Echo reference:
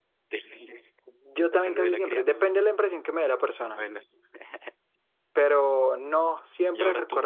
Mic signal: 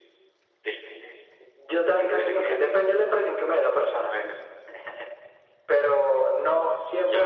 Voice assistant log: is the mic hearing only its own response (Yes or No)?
Yes